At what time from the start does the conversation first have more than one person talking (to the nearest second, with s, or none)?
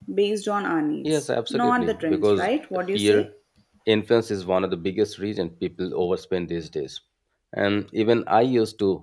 1 s